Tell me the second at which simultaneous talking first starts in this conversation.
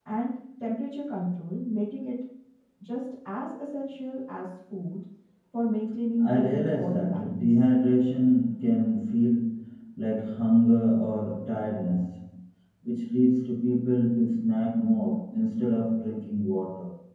6.2 s

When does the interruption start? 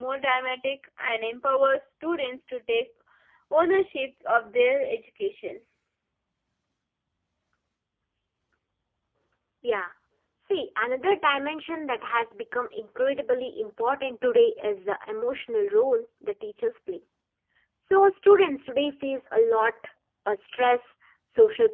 none

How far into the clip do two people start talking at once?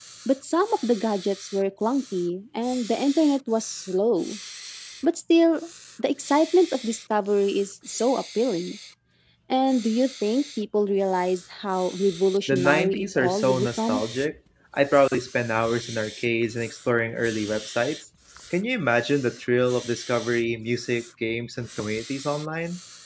12.5 s

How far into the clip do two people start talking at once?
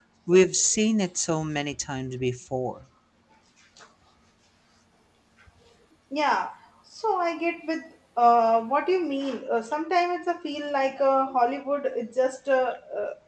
none

